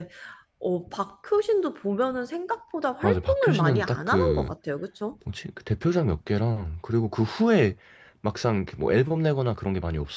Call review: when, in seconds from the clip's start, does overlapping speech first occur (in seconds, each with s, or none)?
3.0 s